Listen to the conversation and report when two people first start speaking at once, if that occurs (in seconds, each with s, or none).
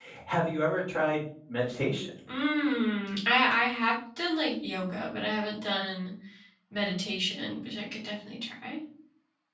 none